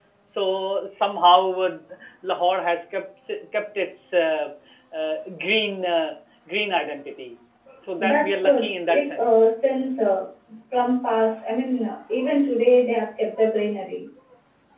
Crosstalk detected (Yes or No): Yes